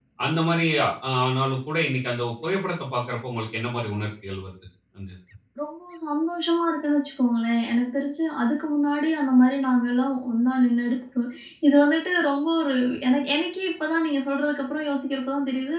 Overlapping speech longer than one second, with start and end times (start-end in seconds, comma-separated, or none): none